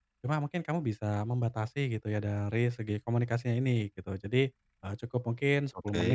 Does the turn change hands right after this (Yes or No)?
No